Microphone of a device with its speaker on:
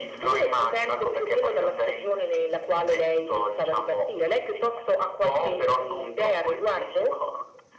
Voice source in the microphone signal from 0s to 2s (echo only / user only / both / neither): echo only